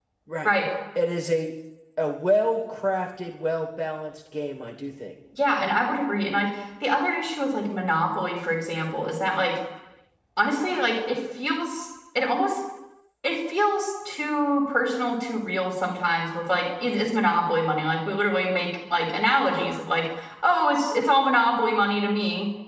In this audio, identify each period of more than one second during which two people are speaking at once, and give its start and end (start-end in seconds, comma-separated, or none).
none